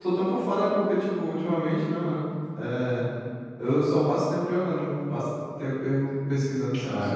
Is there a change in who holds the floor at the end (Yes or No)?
Yes